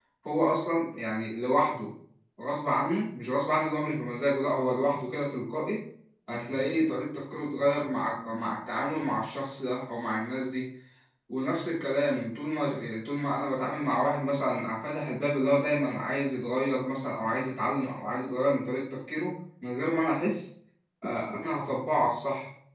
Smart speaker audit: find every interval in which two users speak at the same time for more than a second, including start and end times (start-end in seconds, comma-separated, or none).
none